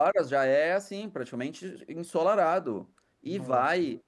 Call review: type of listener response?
listening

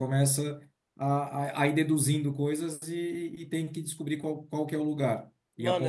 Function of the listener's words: taking over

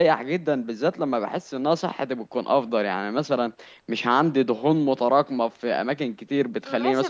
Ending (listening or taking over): taking over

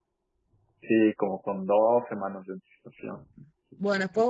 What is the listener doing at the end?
taking over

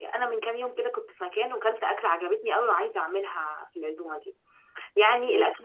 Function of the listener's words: listening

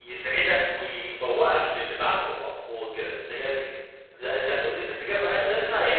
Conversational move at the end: listening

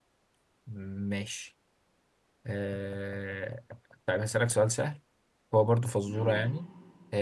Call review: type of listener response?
listening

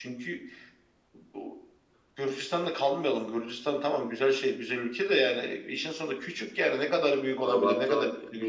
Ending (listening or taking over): taking over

